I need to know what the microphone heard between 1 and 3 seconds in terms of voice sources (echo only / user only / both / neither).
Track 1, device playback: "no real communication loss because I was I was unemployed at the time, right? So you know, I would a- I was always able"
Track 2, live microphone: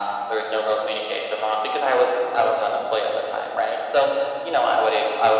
echo only